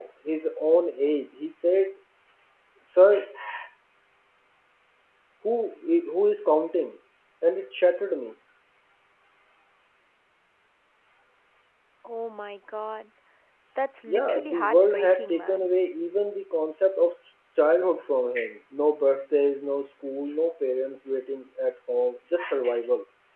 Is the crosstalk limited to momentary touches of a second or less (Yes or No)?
No